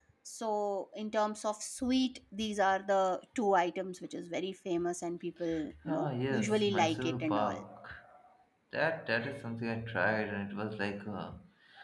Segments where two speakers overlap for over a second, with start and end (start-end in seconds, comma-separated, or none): 5.9-7.6